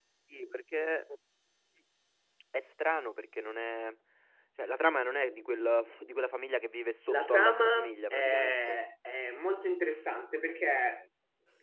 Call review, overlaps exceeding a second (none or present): present